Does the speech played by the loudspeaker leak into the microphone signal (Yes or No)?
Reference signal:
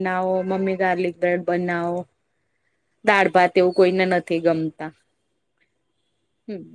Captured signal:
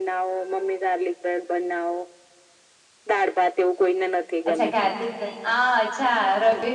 Yes